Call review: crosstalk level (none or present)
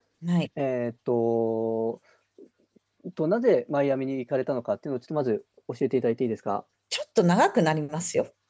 none